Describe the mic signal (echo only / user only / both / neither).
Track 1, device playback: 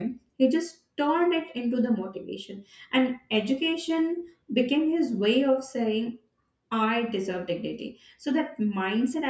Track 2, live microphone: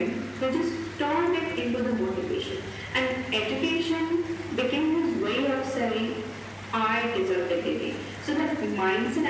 echo only